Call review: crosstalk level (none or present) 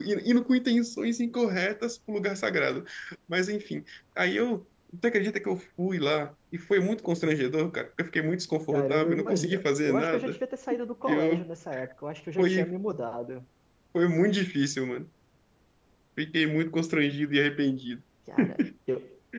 present